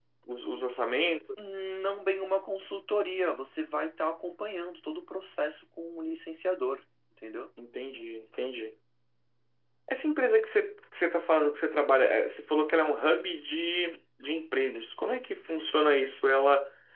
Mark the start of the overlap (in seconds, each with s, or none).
none